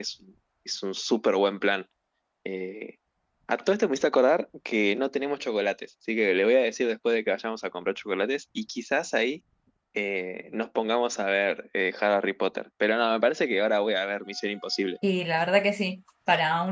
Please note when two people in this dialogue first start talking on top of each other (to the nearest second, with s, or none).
none